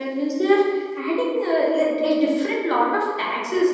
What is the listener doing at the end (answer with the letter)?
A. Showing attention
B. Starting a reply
A